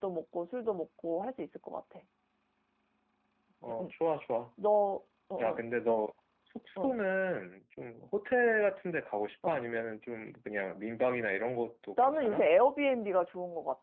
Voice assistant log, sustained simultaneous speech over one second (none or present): none